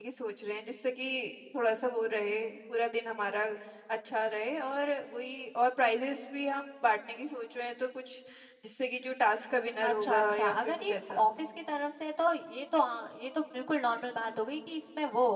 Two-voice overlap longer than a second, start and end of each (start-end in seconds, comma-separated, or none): 9.8-11.3